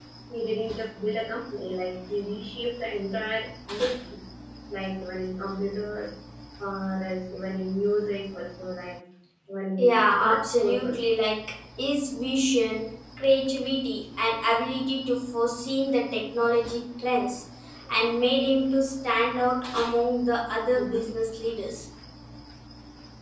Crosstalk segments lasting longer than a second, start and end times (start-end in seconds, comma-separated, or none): 9.8-11.0